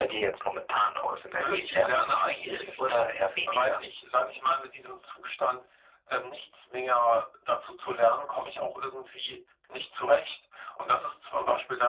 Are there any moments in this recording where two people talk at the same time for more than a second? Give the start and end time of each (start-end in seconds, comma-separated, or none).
1.3-3.0